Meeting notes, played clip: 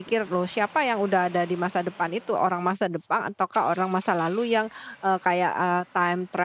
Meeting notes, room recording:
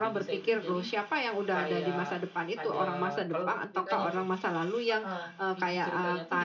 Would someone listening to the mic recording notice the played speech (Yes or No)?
Yes